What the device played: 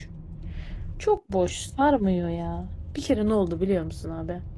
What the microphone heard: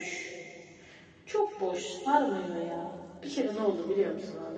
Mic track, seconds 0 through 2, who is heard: echo only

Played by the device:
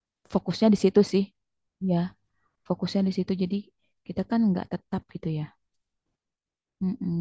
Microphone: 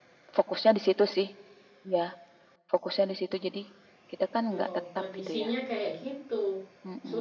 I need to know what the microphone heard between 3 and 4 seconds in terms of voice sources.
echo only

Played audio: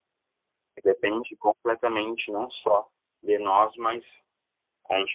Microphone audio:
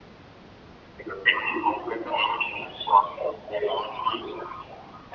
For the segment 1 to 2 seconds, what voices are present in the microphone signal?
echo only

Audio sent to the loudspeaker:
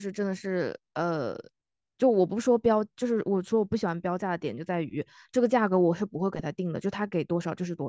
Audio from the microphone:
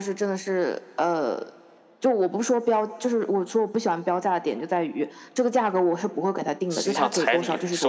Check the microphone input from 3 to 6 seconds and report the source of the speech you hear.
echo only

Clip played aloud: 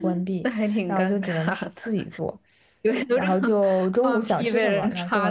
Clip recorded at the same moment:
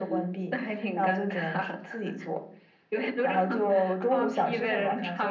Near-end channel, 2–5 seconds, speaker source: echo only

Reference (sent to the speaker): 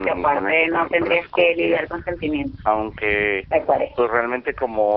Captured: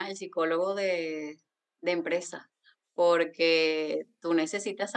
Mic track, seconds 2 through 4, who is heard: user only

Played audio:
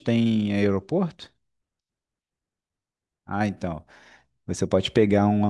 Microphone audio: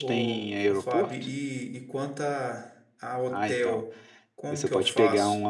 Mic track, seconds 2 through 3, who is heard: user only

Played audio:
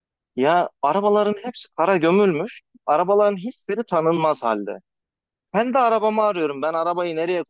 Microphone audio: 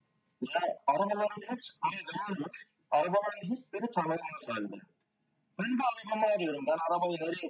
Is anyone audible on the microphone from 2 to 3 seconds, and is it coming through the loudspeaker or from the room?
echo only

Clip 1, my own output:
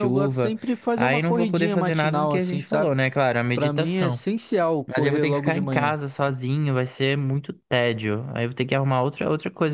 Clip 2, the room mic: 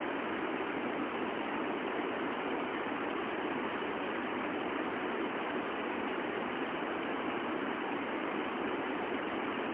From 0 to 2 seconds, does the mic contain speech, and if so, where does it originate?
neither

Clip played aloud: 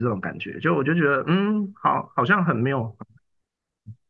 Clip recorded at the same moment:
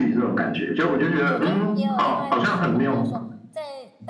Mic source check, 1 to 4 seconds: both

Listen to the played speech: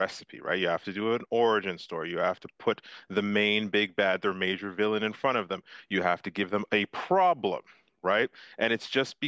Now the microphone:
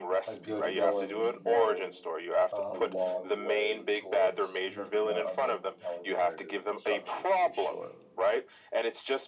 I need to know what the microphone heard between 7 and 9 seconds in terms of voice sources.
both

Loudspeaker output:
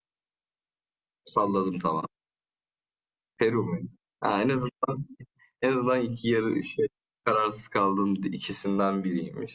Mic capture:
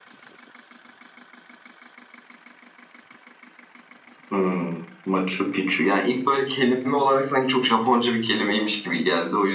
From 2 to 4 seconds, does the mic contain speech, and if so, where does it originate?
neither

